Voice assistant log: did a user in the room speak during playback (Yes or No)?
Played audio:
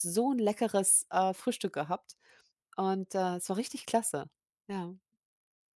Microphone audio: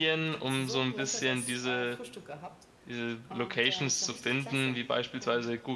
Yes